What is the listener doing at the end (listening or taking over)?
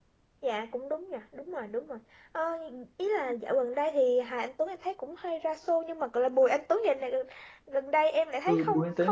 taking over